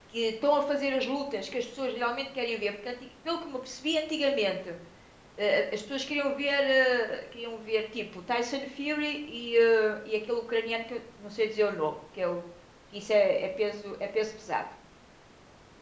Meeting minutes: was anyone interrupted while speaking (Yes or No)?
No